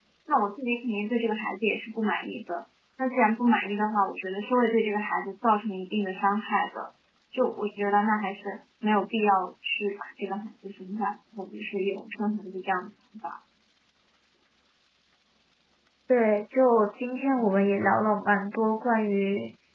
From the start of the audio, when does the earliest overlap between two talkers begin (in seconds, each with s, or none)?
none